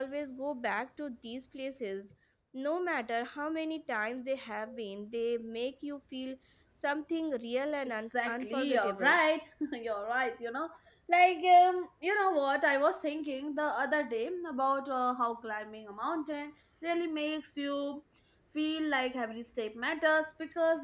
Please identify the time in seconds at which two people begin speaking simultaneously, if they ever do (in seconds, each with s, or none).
7.8 s